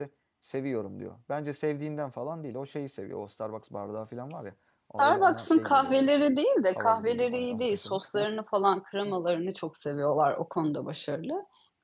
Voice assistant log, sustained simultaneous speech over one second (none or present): present